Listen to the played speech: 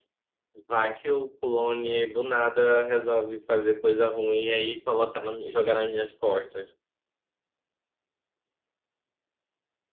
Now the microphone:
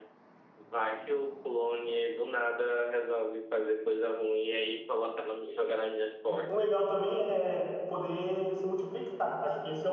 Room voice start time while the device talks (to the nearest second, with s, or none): 6 s